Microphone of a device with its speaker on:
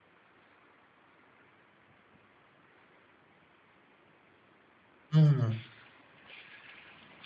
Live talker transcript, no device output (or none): อืม